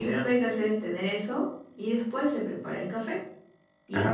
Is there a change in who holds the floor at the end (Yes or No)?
No